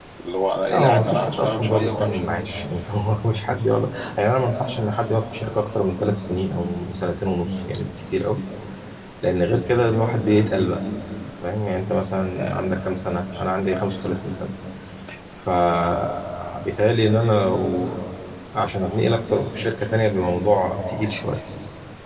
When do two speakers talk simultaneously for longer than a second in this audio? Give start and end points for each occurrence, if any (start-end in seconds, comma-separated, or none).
0.7-2.2